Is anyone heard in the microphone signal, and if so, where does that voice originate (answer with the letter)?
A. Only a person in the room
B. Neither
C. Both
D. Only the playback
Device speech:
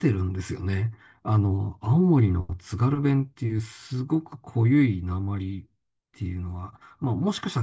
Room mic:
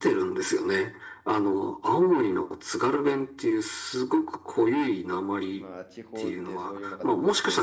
C